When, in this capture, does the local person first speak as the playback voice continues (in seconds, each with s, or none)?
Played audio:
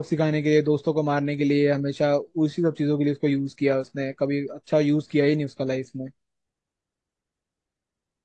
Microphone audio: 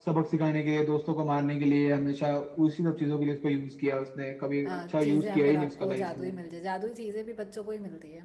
4.7 s